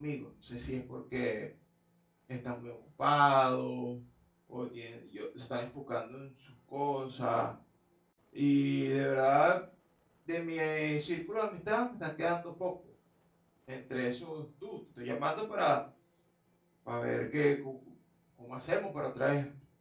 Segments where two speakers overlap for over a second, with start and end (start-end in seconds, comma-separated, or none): none